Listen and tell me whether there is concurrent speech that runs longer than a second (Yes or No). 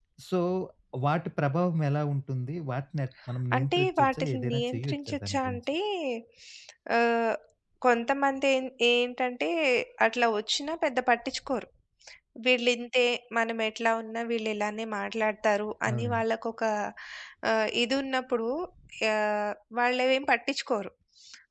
Yes